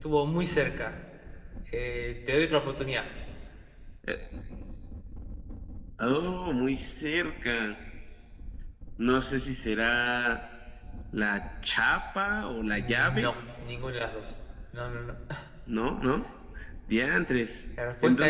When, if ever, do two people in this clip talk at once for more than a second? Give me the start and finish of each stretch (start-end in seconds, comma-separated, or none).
none